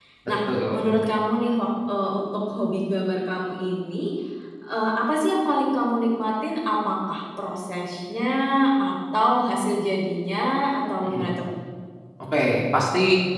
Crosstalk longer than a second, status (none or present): none